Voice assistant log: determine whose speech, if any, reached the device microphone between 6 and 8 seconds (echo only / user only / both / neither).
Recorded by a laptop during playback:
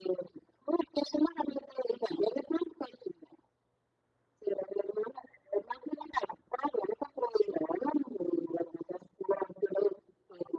echo only